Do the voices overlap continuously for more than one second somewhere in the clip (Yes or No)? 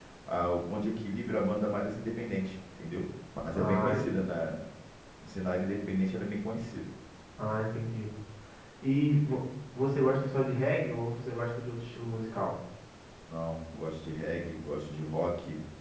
No